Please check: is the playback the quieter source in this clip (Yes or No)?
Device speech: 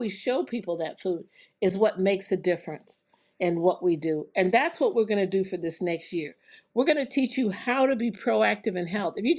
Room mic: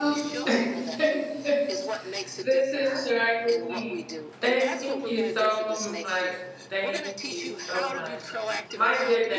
Yes